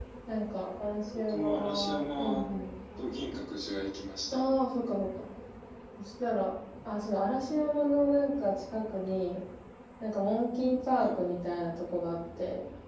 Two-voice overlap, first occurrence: 1.1 s

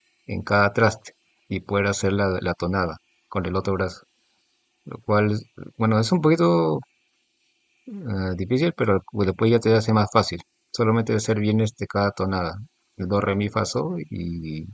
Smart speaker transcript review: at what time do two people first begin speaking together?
none

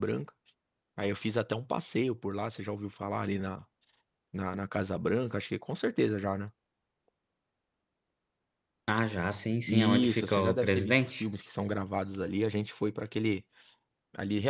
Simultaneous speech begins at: 9.7 s

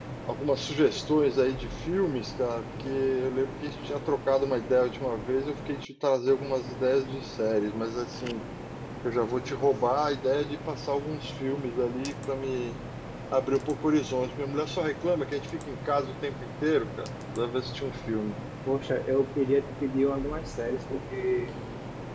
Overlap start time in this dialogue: none

